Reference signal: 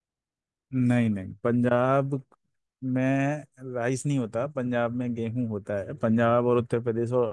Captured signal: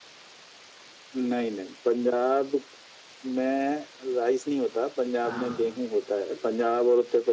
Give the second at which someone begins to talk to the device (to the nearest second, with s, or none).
5 s